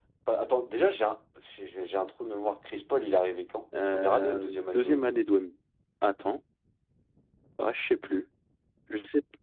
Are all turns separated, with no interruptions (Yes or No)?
No